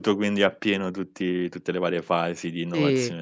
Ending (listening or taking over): listening